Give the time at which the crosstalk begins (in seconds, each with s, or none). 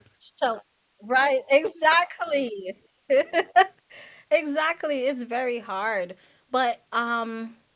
none